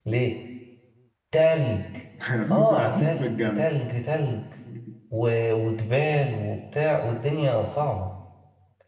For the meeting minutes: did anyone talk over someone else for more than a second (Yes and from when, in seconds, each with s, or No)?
Yes, from 2.5 s